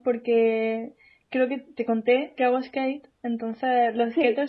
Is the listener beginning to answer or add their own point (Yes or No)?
No